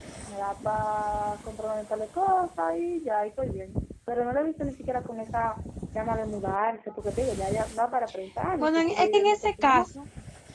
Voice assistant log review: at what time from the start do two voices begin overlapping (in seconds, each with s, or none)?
8.6 s